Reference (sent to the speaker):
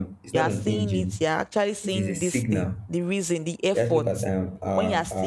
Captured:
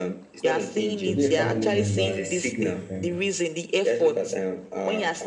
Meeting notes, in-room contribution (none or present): present